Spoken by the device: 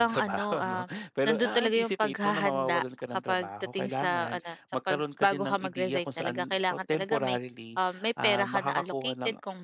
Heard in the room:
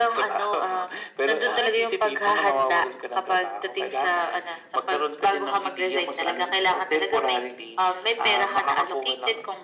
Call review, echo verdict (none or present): present